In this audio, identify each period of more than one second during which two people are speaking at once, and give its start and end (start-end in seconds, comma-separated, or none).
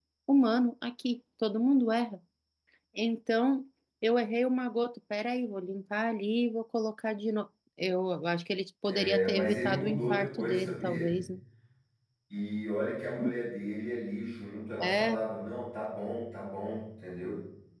9.0-11.2